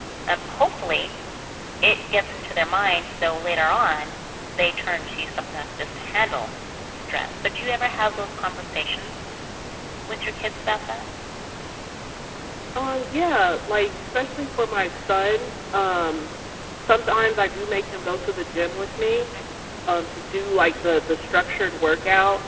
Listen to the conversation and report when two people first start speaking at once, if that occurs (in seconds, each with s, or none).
none